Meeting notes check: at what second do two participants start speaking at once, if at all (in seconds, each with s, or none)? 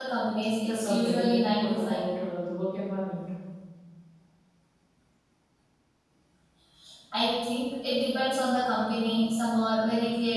0.7 s